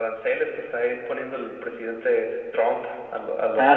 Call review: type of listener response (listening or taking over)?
taking over